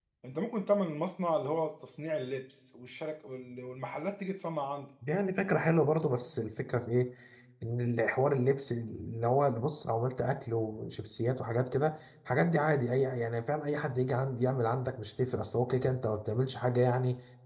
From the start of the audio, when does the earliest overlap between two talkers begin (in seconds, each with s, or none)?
none